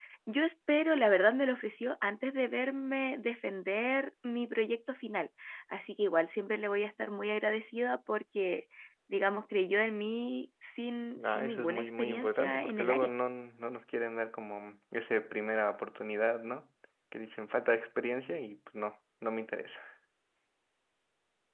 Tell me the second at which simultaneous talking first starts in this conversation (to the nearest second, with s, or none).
11 s